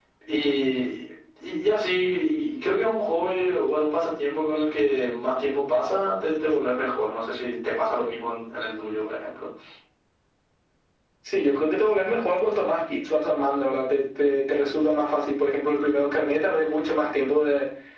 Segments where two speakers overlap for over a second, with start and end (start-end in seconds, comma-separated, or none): none